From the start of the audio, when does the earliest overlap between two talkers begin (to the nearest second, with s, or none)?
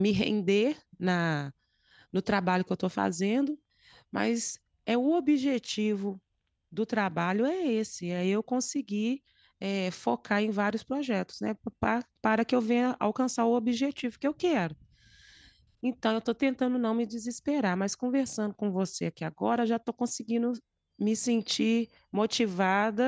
none